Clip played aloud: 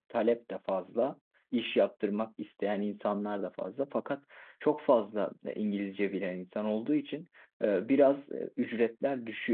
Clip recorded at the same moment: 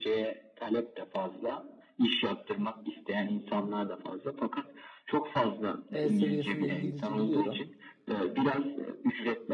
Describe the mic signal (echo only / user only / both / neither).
both